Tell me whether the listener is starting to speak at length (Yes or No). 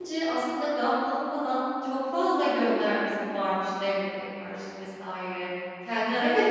Yes